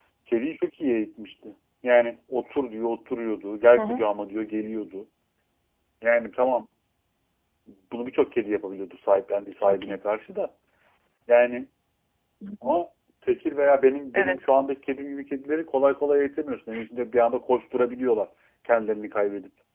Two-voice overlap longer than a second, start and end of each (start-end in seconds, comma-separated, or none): none